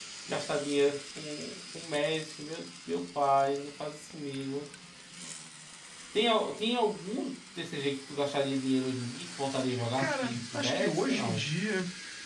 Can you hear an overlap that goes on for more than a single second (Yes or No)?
Yes